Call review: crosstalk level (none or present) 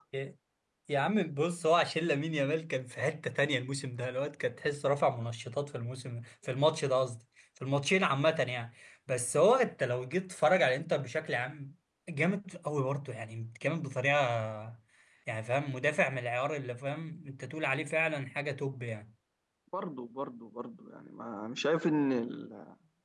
none